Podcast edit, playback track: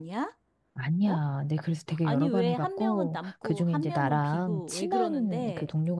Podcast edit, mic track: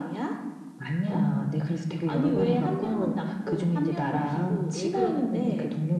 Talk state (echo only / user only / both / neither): echo only